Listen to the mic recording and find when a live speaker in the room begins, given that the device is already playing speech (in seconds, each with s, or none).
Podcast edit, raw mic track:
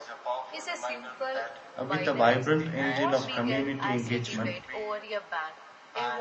1.8 s